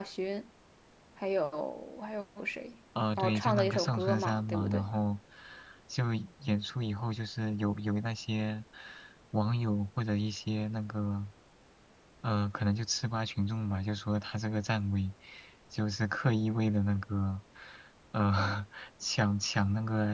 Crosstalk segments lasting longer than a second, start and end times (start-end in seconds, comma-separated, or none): 3.2-4.9